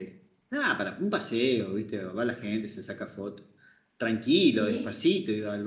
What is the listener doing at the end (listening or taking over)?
listening